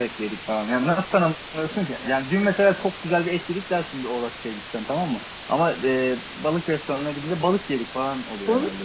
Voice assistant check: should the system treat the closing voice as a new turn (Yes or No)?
Yes